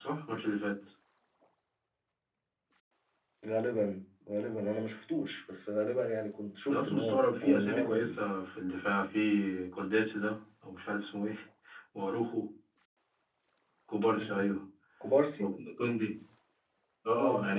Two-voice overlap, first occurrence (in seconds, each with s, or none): 6.7 s